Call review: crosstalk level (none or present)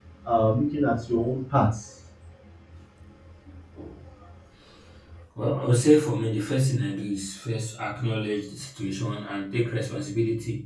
none